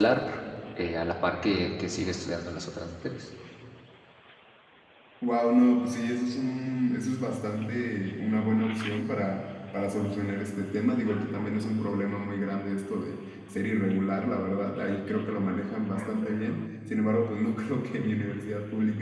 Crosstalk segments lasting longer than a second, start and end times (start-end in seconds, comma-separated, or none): none